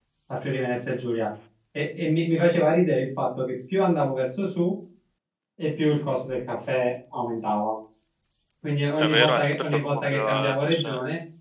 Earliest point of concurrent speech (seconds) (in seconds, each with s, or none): 9.0 s